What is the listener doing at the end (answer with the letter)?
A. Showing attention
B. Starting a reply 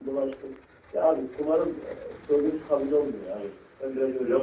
B